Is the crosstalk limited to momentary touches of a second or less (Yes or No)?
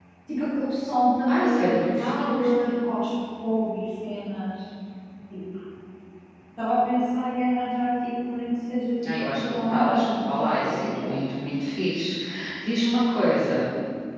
No